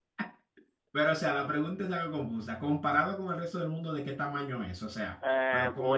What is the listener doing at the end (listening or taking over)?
taking over